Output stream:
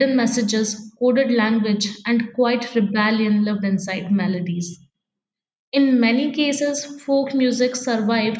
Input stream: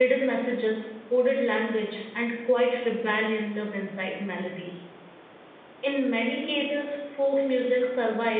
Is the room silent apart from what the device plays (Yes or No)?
Yes